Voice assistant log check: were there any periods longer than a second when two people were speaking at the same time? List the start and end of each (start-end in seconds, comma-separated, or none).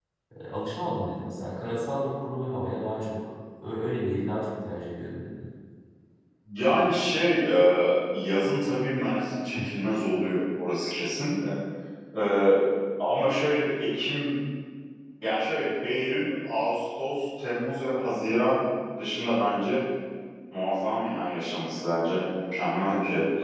none